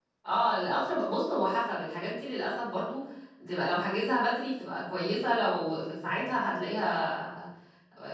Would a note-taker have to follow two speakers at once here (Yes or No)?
No